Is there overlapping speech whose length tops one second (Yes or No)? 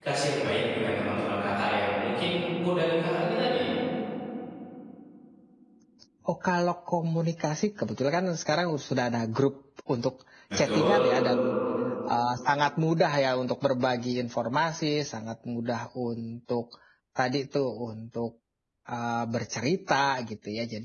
No